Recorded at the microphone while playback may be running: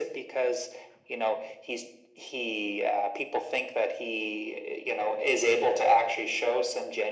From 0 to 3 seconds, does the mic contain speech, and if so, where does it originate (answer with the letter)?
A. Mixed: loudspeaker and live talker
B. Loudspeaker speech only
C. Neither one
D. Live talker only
B